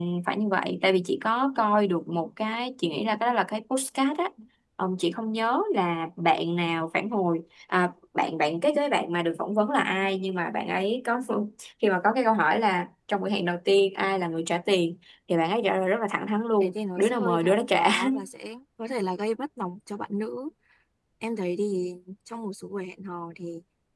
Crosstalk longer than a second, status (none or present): present